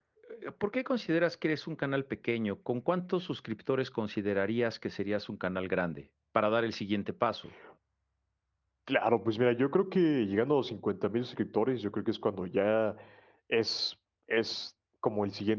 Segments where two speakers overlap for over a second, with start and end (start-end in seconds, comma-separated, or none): none